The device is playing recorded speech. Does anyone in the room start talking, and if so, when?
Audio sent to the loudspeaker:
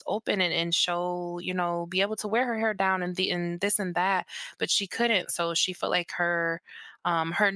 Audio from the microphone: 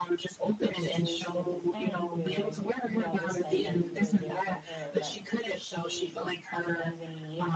0.8 s

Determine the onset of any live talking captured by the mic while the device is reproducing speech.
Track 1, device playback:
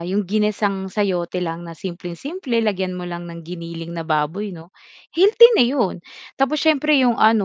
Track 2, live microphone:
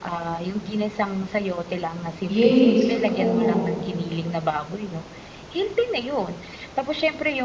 2.4 s

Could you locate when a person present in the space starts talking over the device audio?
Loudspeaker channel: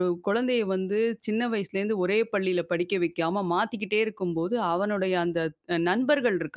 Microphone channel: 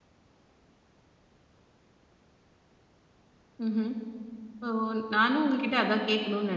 3.6 s

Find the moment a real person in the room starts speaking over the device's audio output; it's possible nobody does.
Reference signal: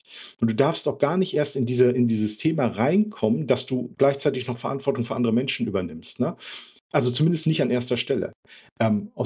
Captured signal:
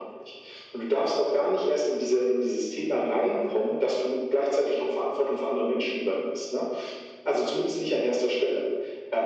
none

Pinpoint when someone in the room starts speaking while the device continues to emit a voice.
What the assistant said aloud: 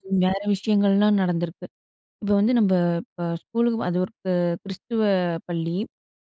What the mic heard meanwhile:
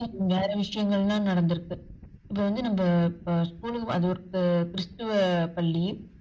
none

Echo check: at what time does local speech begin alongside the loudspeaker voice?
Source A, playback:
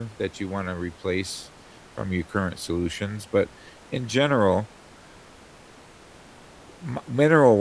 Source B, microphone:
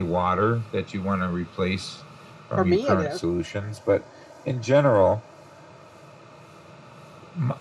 2.5 s

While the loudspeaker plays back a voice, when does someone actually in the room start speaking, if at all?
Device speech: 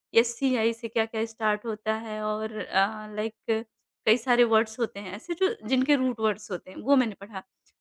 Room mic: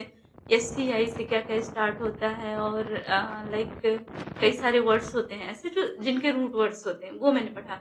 none

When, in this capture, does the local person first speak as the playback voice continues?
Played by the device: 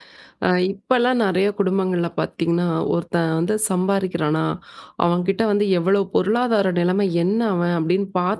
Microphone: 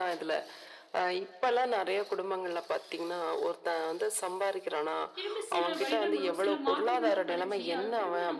5.2 s

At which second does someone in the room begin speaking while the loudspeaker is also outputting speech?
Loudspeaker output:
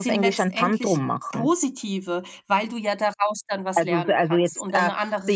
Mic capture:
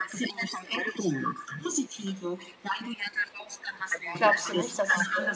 4.1 s

